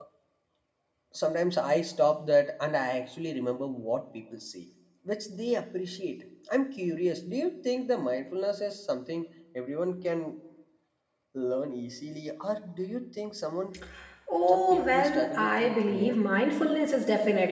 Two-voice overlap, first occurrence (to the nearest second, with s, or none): 14 s